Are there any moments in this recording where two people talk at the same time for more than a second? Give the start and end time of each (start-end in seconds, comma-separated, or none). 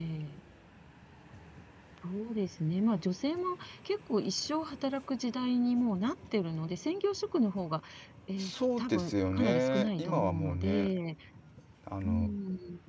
8.4-10.9